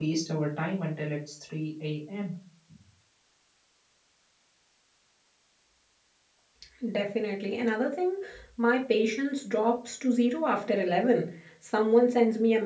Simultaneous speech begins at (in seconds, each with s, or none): none